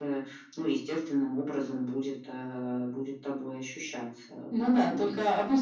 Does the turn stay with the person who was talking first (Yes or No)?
No